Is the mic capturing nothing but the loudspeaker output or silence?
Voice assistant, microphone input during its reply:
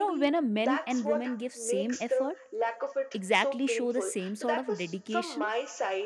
No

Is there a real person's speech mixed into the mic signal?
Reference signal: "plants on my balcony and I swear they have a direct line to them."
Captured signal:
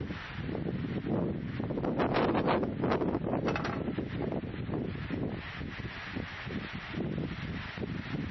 No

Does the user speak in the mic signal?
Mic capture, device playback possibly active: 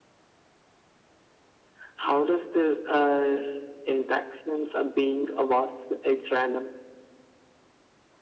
No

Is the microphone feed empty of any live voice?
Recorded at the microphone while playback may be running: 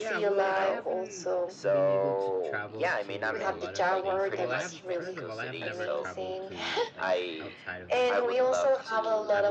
No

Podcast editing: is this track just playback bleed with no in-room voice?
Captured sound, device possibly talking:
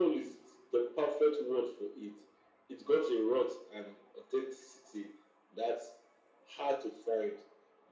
Yes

